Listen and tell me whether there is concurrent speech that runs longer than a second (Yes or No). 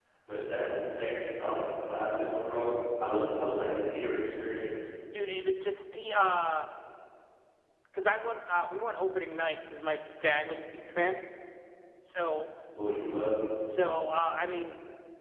No